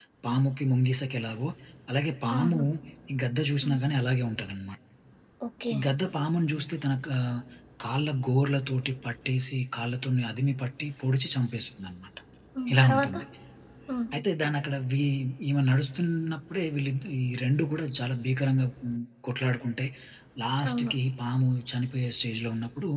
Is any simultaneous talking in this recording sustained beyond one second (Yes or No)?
No